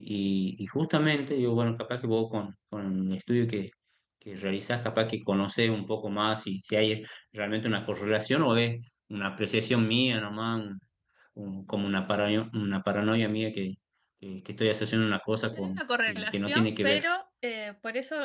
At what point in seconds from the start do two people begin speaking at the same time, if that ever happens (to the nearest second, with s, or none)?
16 s